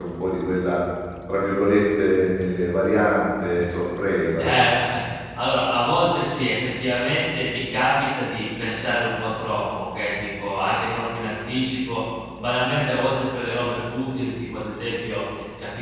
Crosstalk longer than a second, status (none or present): none